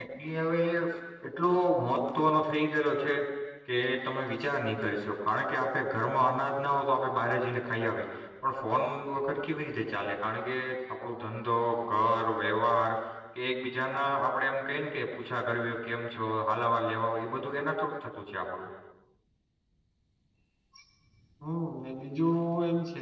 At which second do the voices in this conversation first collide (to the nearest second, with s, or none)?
none